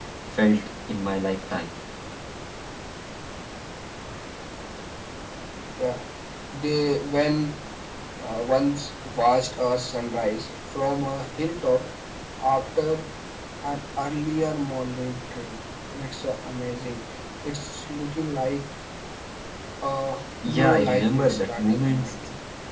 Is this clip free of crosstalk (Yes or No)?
No